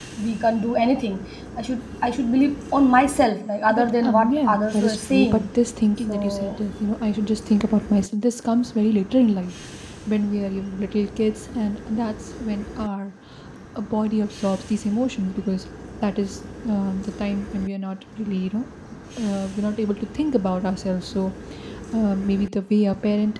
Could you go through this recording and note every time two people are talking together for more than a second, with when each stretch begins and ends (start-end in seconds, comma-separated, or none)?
3.7-5.4